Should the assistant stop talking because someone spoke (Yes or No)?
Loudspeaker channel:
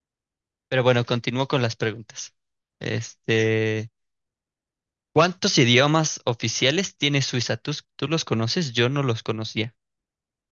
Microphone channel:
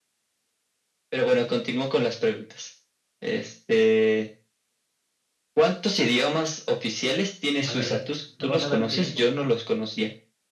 Yes